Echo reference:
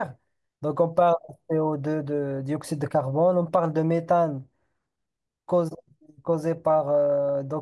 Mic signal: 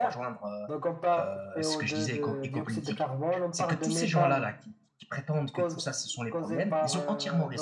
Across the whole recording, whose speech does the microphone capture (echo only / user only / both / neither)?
both